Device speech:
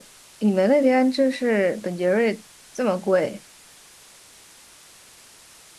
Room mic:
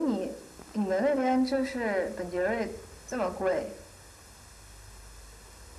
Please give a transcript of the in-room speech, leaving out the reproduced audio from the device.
none

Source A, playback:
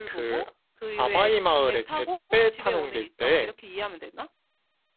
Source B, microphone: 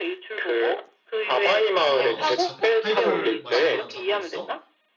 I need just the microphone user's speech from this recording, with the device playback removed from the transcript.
아, 어, 자, 하이볼 마실 만한 잔도 있어?

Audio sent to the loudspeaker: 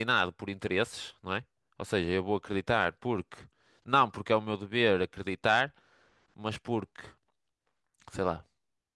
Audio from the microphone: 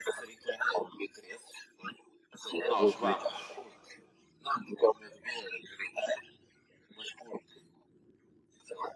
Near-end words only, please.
nós vamos

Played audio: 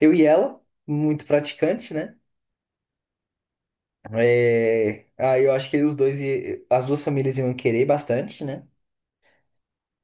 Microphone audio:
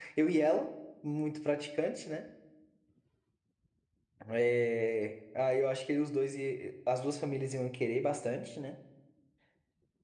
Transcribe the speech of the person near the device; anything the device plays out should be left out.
none

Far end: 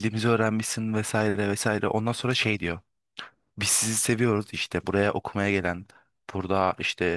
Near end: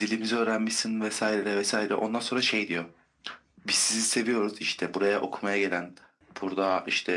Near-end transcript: none

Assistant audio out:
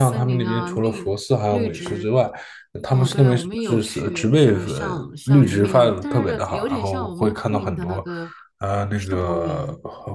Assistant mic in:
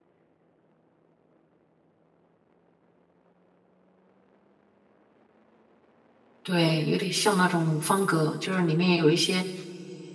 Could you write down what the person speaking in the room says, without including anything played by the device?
对，有点像那种方格，就是里面有一些

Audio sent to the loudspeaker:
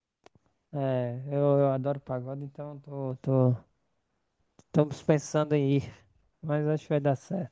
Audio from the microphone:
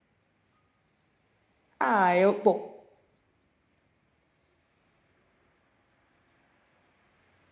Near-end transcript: Ah, eu, bom,

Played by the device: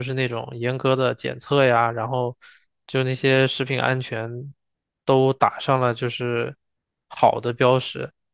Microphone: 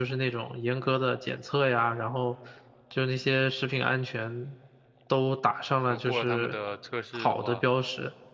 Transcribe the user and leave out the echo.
后过了他们的测试的话，

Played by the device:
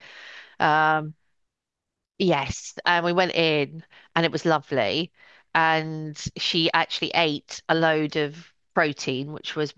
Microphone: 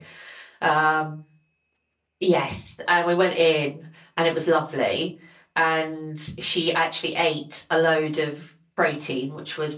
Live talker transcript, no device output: none

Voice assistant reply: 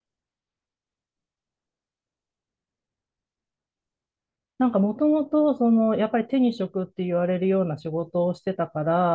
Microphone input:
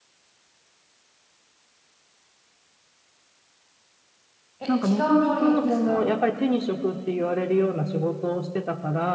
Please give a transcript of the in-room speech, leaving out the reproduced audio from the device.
え違う料理人ですか

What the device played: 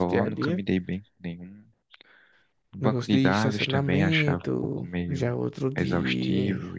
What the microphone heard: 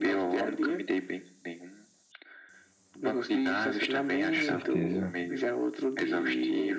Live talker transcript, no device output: com certeza.

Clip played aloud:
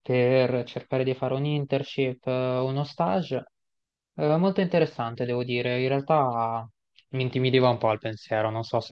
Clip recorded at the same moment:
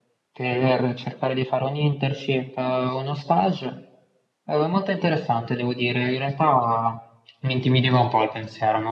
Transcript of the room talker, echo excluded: none

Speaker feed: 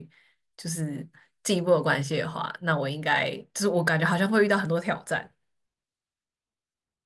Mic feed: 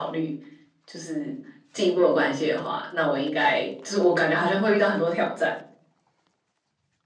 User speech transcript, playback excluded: none

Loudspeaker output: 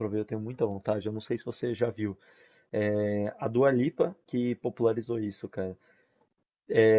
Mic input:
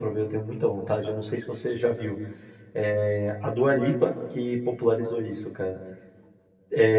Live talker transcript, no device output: none

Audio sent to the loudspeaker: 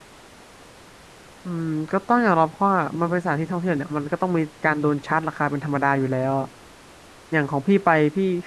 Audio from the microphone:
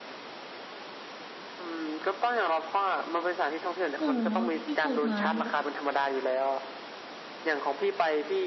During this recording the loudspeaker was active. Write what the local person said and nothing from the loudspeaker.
เออเนาะที่พูดมาแล้วแบบ

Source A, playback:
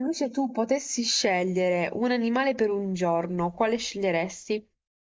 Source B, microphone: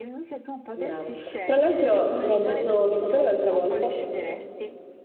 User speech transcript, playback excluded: Brava. Tra l'altro mi ha detto mio fratello l'altra volta

